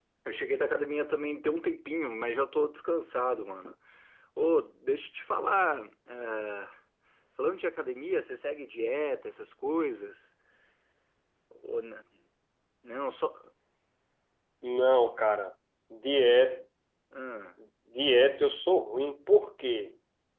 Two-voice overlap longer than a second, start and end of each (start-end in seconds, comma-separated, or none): none